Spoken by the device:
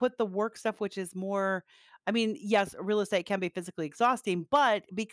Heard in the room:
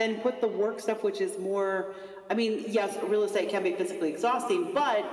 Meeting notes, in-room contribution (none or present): none